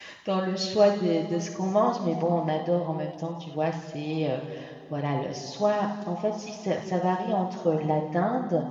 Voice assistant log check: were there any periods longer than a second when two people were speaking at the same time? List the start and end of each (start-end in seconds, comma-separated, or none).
none